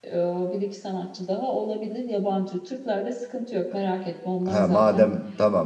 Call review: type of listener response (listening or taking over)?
taking over